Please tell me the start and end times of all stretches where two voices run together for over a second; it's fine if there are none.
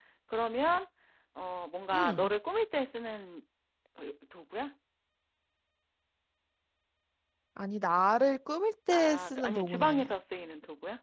8.9-10.1

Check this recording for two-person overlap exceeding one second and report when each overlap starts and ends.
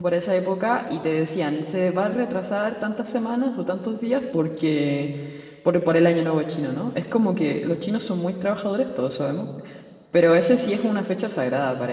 none

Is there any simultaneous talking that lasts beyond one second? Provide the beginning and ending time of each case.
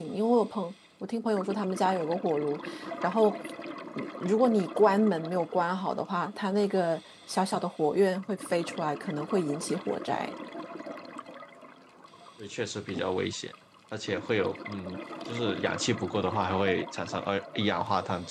none

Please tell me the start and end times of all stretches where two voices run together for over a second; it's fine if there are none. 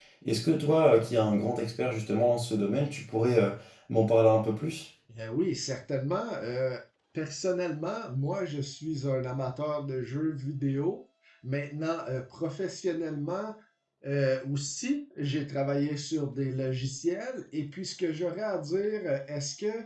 none

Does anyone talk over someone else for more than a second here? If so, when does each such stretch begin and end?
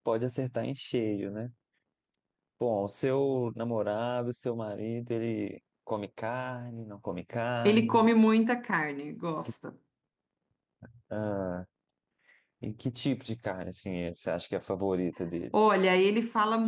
none

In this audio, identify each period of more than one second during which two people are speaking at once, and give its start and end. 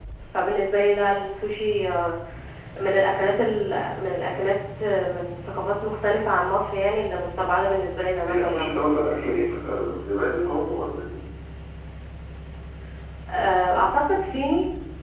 none

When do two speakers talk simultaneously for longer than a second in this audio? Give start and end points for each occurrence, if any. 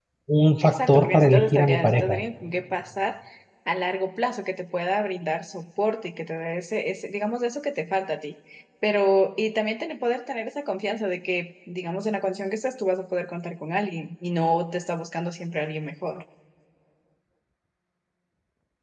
0.6-2.2

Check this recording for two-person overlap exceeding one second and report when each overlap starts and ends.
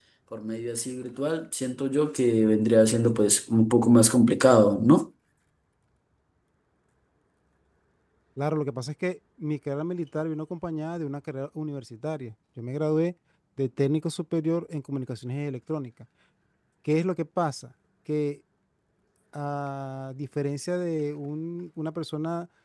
none

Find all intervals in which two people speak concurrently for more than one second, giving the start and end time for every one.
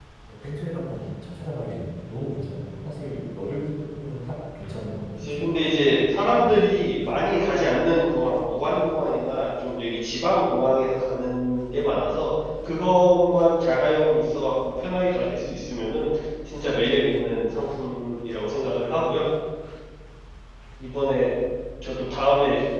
5.1-6.9

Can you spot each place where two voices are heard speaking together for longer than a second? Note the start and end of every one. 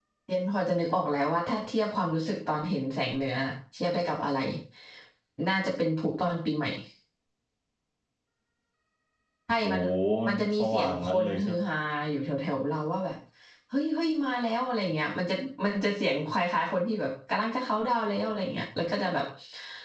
10.3-11.6

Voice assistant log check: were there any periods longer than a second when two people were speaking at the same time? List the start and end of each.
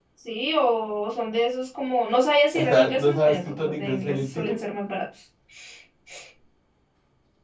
2.5-4.6

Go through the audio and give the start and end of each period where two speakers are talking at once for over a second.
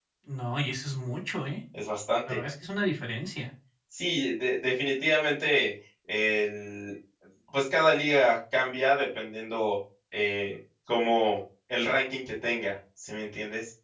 none

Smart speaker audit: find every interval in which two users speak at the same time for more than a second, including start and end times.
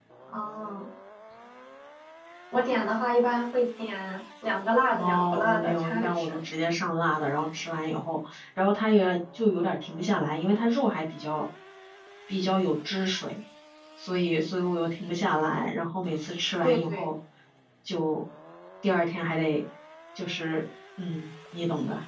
4.9-6.4

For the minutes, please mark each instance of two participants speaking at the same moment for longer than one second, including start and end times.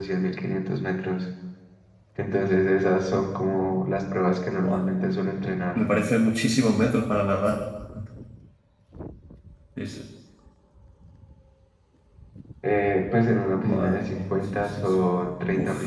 13.5-15.0

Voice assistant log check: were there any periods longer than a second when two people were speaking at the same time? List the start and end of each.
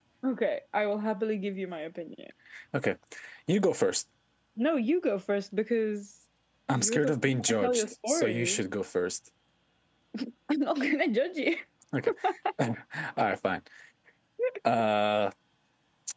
6.7-8.6

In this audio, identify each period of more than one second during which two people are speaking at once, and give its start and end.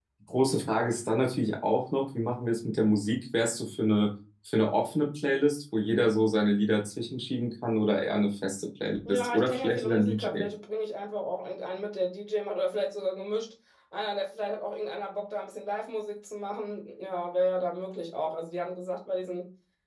9.1-10.3

